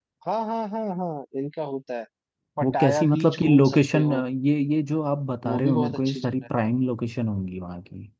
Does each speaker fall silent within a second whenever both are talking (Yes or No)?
No